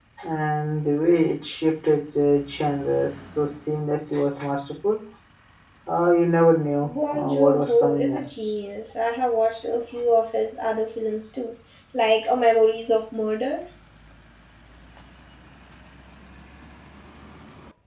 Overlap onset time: 6.8 s

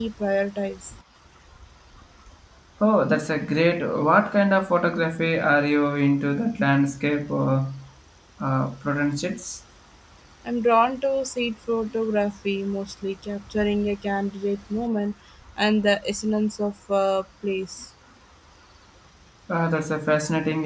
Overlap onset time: none

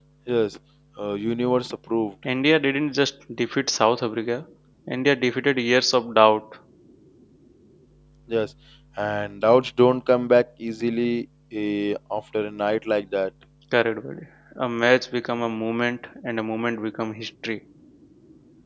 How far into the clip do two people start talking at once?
none

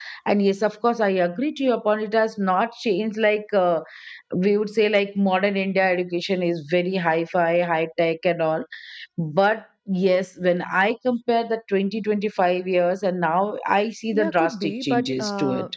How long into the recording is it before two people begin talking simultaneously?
14.1 s

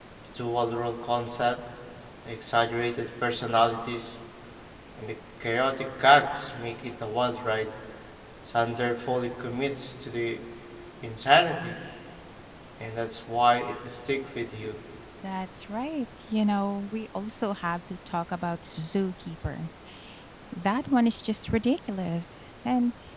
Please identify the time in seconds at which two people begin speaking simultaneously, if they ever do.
none

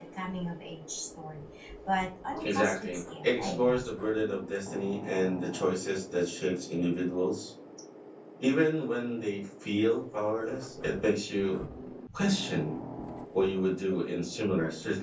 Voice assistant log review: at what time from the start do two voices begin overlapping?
2.4 s

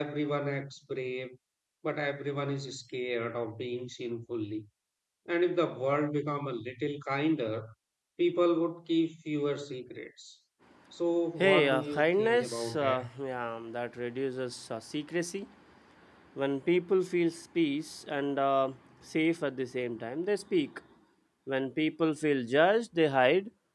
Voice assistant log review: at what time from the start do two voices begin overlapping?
11.4 s

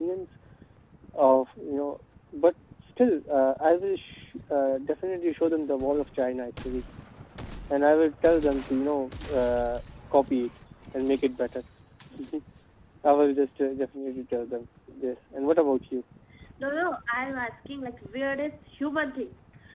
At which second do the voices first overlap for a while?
none

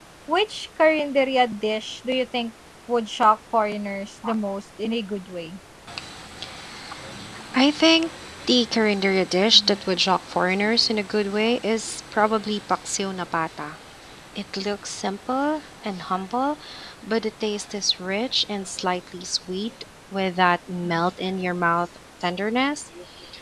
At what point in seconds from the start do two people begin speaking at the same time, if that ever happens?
none

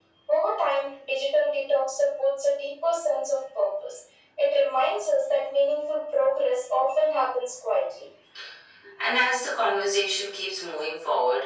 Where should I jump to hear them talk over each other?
none

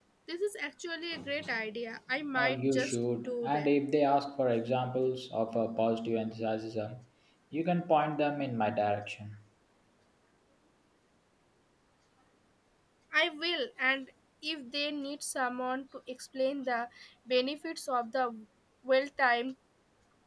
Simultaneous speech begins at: 2.4 s

